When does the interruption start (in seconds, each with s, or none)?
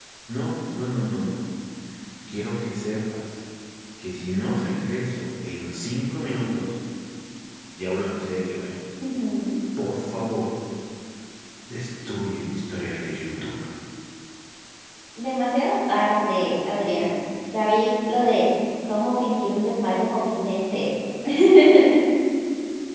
none